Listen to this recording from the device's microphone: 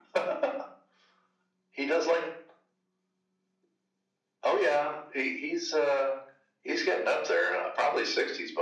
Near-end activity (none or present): none